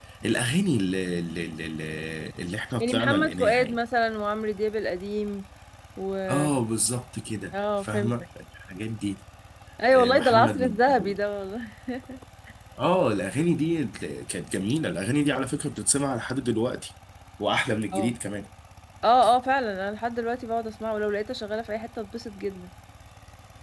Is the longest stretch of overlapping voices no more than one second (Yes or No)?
No